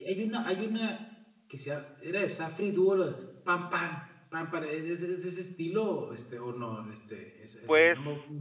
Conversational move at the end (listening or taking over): taking over